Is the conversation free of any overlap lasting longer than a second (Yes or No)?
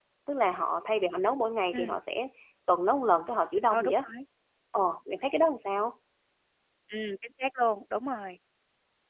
Yes